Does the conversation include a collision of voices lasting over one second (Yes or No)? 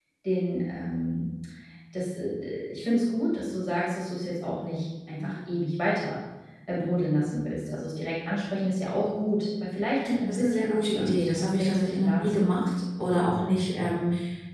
Yes